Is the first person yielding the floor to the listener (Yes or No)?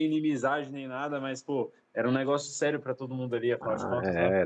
Yes